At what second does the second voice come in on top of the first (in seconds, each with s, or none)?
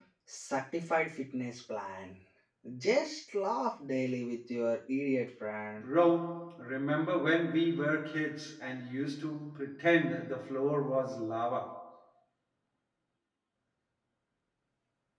none